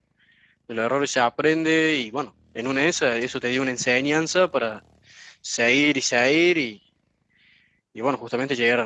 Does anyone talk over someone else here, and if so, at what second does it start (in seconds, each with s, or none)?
none